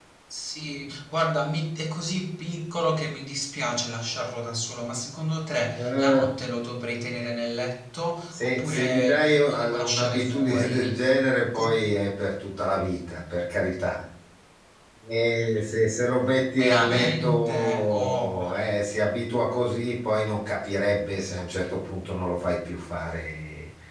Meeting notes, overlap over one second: present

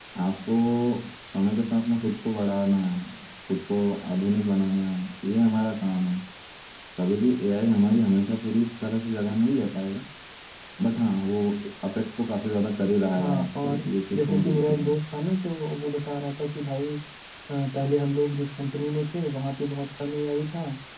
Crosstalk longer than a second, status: present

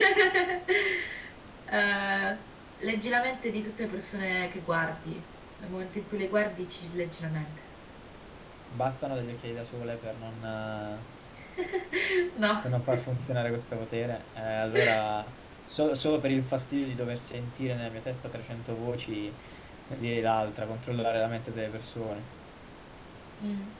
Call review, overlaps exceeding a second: none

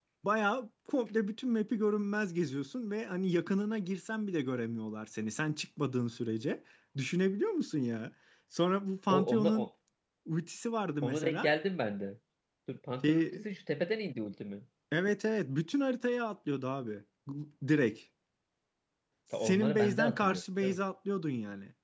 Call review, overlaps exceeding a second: present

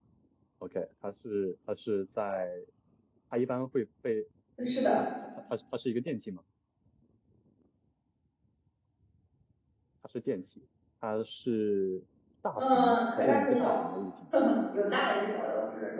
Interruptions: present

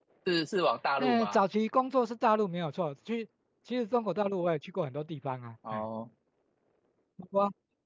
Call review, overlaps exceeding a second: none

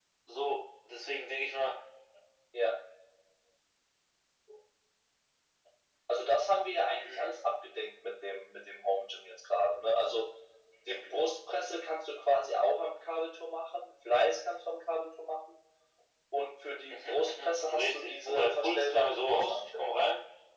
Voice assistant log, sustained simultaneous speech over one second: present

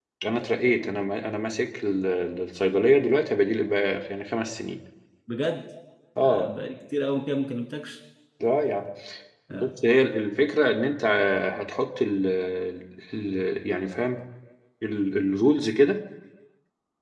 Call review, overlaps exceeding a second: none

